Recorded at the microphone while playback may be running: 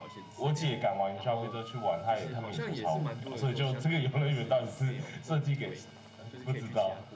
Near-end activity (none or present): present